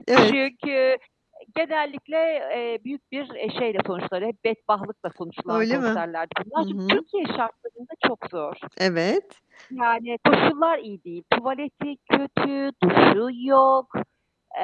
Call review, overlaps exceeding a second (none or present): none